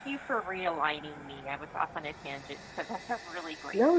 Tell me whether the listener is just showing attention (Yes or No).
No